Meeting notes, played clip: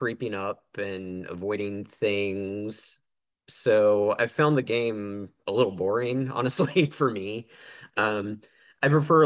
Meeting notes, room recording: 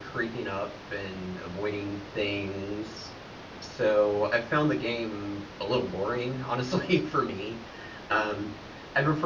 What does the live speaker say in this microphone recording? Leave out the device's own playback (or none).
none